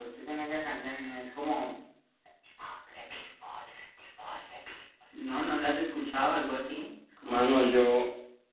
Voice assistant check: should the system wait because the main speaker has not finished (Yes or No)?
No